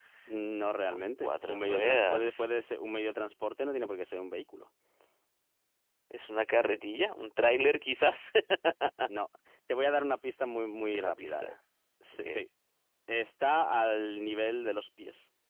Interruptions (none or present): present